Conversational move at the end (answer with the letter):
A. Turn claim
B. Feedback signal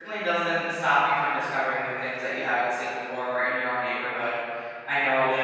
A